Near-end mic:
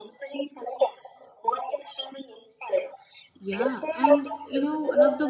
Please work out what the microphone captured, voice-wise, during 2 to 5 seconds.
both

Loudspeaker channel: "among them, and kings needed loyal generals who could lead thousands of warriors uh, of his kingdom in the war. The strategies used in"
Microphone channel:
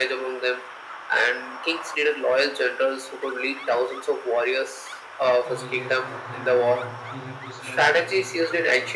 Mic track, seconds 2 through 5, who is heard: echo only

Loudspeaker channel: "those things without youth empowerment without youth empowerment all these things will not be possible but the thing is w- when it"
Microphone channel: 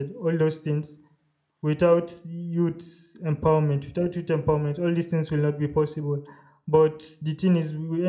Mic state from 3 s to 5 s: echo only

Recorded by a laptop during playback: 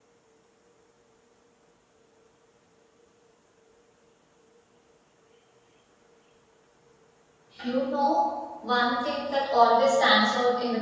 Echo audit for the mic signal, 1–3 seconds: neither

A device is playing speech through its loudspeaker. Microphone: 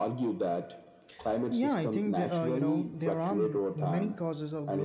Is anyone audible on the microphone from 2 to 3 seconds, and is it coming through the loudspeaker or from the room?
both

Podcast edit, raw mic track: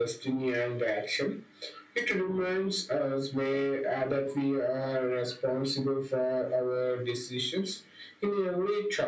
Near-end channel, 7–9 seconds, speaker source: echo only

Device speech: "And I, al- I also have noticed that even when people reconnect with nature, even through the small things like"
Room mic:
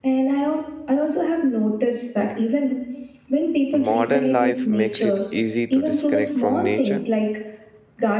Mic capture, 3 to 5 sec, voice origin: both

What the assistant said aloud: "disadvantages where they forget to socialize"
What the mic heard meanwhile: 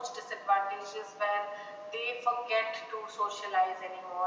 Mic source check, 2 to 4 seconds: echo only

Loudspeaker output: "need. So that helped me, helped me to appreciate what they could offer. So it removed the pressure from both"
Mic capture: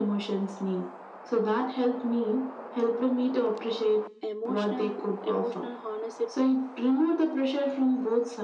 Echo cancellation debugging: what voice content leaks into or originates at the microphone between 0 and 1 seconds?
echo only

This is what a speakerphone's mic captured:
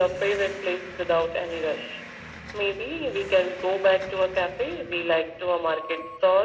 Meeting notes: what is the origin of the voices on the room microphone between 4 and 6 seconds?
echo only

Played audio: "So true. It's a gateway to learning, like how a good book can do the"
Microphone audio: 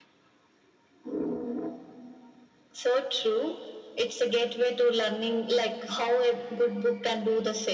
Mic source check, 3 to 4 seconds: echo only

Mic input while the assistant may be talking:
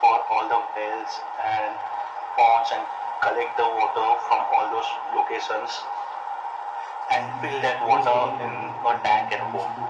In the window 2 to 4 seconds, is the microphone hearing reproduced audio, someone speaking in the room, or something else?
echo only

